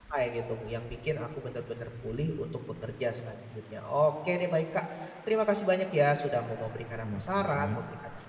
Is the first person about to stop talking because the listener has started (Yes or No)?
No